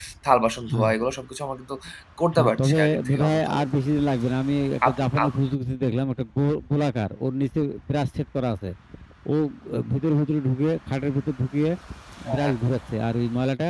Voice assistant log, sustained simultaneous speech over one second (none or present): present